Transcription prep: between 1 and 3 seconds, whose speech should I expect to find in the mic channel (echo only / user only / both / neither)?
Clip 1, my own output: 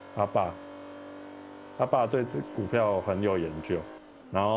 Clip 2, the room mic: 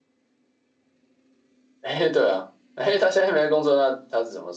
user only